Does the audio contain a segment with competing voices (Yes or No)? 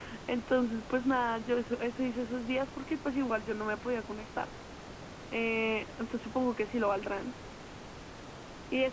No